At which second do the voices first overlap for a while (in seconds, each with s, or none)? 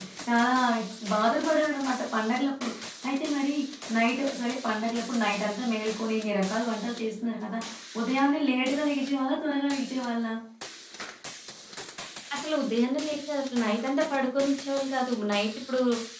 none